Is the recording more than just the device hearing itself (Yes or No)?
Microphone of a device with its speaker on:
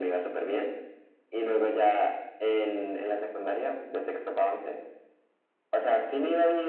No